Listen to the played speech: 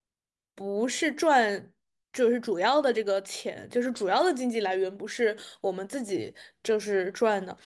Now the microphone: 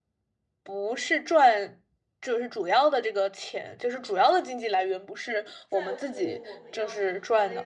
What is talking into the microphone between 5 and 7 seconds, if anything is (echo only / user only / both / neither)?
both